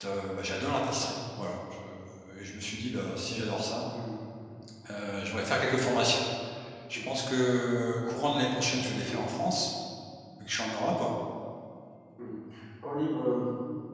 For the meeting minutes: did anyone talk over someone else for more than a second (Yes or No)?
No